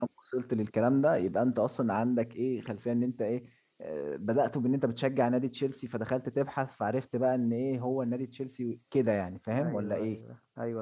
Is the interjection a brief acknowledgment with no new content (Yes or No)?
No